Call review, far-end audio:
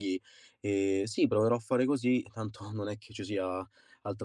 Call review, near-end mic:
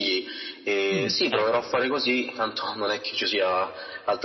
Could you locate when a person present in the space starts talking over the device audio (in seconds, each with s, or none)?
0.9 s